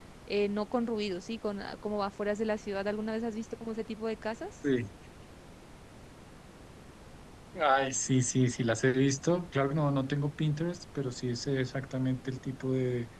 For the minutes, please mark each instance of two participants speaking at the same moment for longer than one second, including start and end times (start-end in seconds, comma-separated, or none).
none